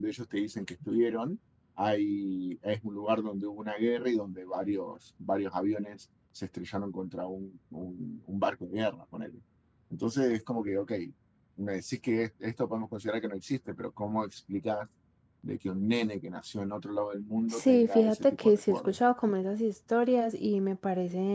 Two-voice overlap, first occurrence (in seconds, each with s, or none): 17.5 s